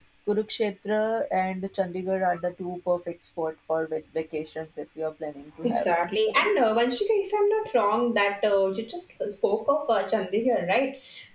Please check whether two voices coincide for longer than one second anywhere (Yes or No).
No